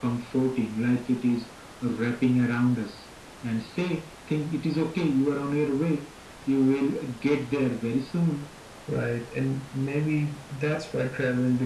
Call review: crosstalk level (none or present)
none